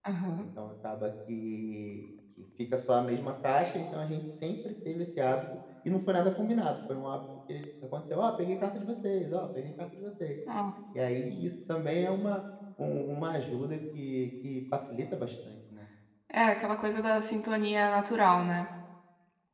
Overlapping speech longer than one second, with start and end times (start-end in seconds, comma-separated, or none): none